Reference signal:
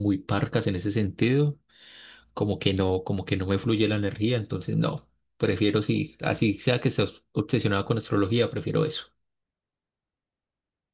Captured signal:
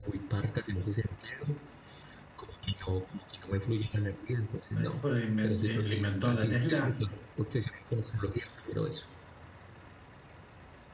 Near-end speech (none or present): present